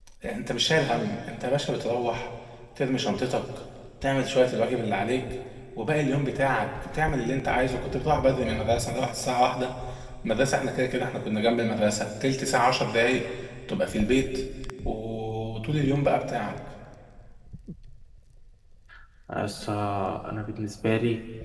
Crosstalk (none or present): none